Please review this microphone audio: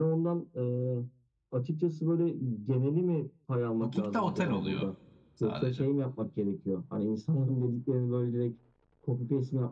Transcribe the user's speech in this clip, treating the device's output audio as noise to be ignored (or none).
Booking'de otel oluyor sadece.